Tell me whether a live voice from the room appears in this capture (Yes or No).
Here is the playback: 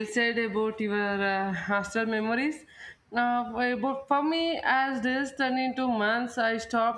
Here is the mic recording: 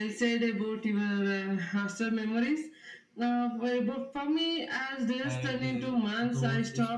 Yes